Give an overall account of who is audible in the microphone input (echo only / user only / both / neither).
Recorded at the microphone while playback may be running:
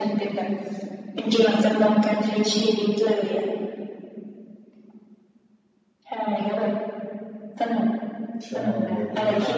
both